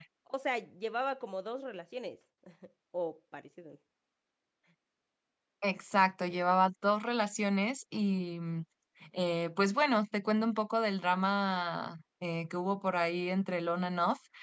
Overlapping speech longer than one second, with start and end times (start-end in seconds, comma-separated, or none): none